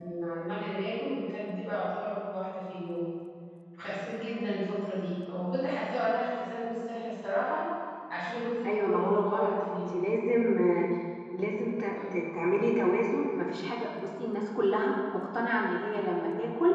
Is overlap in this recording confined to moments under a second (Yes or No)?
No